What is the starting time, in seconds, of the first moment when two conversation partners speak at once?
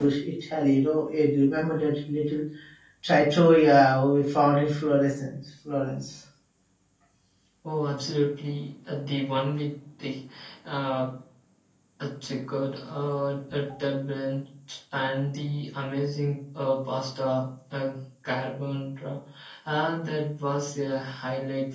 none

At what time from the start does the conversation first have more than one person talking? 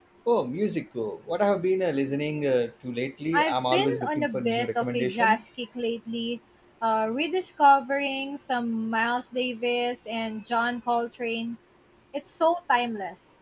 3.3 s

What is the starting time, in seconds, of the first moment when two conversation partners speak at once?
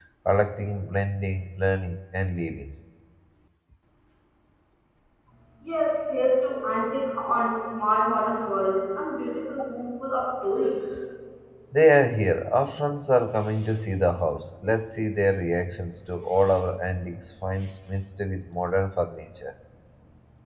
none

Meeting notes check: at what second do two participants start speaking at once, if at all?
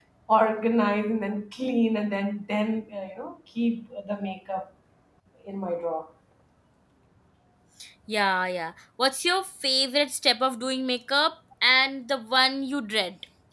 none

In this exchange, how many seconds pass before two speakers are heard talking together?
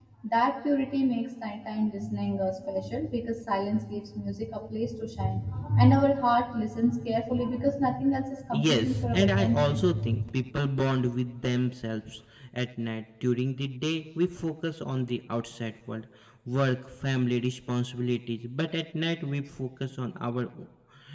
8.5 s

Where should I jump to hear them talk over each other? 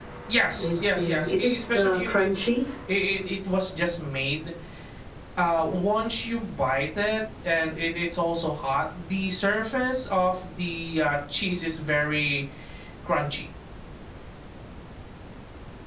0.6 s

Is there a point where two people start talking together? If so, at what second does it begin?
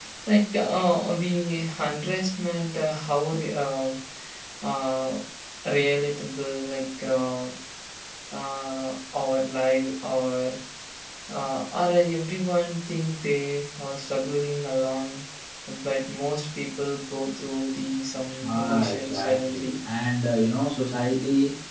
18.4 s

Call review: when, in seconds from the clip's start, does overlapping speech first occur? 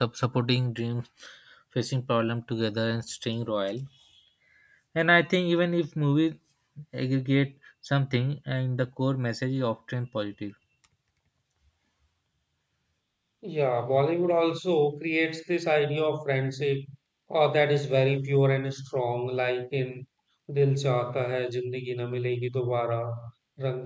none

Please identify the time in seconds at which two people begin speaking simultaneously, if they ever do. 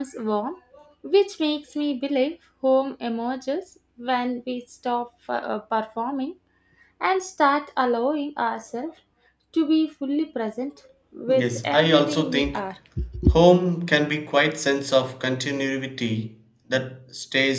11.3 s

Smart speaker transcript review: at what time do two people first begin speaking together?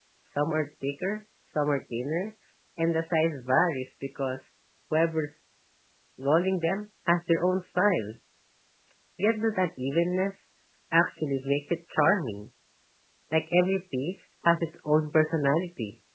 none

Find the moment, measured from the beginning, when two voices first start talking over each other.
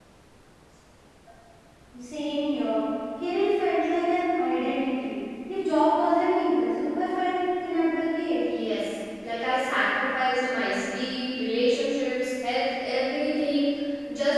none

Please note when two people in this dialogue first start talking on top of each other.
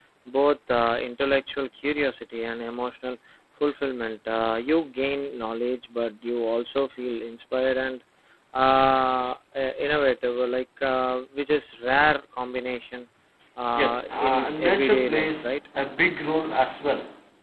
13.8 s

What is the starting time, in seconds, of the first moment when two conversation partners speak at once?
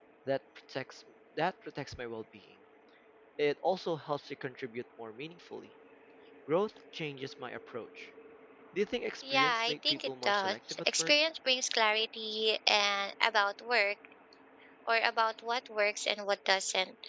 9.3 s

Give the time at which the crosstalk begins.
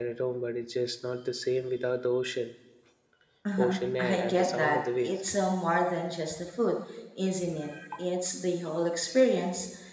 3.6 s

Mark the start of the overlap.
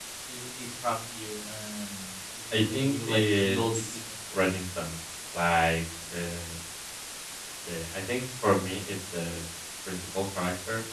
2.5 s

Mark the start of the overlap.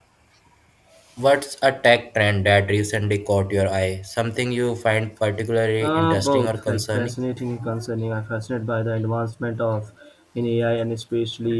5.8 s

